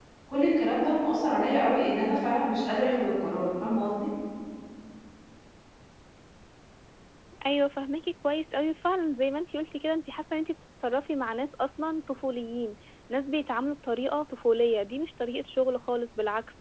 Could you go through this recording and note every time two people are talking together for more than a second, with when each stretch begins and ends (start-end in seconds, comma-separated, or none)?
none